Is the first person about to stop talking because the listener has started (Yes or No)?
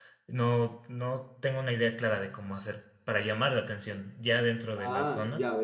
Yes